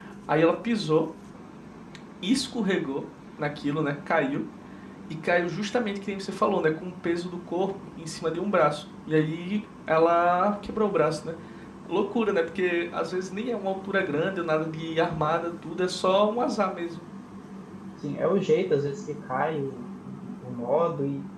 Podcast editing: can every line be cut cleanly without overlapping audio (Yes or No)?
Yes